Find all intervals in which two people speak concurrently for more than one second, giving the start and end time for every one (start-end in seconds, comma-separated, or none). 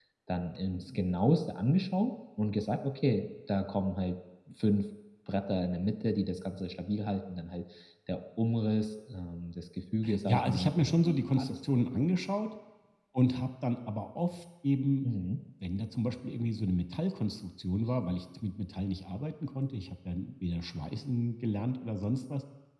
10.2-11.6